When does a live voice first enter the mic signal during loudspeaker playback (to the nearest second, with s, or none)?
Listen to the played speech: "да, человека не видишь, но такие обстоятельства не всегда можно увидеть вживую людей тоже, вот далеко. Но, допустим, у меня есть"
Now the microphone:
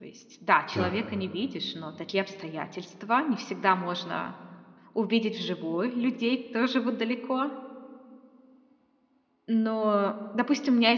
1 s